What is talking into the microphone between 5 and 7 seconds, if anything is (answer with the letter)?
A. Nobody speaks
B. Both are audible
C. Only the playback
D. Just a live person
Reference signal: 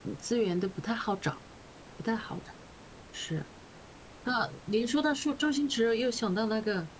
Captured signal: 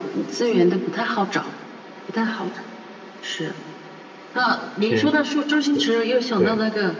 B